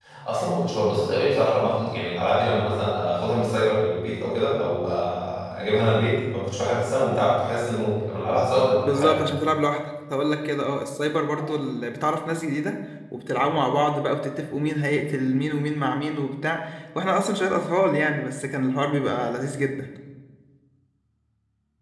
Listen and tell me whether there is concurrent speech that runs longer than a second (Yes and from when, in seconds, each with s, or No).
No